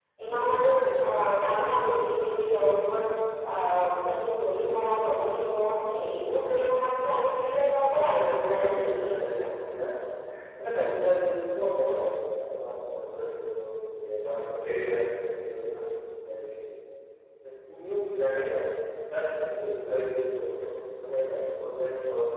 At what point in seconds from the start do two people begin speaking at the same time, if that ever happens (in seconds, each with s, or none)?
7.9 s